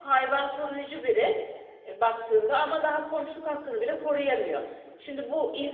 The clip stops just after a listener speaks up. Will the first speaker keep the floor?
Yes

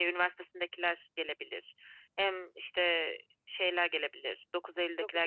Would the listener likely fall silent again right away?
Yes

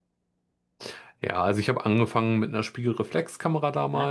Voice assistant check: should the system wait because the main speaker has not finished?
Yes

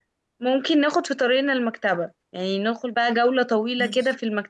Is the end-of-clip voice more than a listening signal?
No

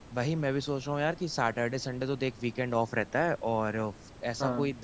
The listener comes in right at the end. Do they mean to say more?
No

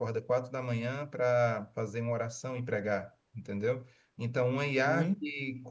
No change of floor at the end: Yes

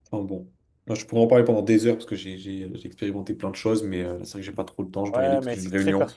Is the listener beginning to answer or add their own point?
Yes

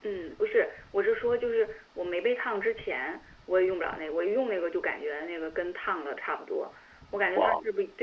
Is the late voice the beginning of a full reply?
No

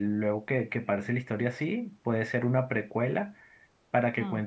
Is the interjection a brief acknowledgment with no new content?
Yes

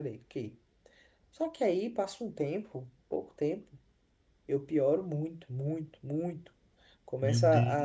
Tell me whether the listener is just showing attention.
Yes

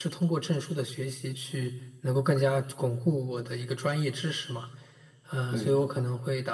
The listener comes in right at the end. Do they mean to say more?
No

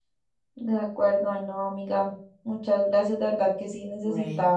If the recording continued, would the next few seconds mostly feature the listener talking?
No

